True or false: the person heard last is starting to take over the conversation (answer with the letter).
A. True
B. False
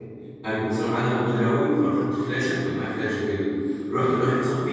B